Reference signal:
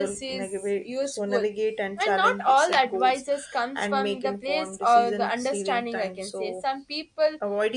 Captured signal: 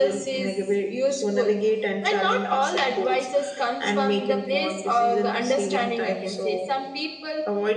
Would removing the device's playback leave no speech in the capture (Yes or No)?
Yes